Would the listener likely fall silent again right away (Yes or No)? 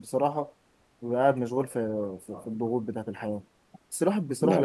Yes